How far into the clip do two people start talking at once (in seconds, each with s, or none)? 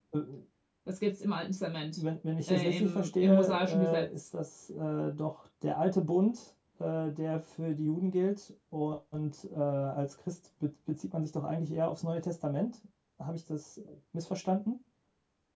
2.5 s